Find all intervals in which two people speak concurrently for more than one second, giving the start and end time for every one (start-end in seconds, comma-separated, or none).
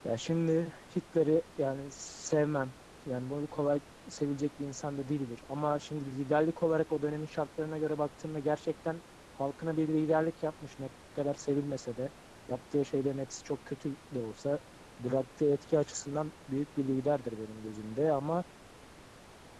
none